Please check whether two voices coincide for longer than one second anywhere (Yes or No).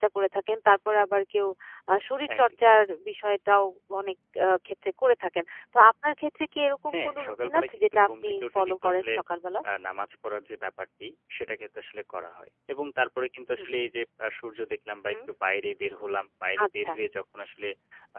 Yes